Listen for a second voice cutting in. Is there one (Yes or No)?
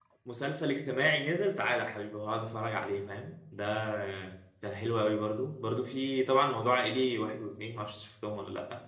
No